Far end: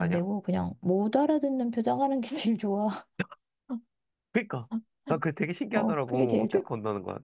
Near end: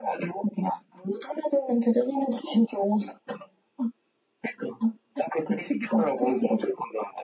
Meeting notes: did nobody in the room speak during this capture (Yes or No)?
Yes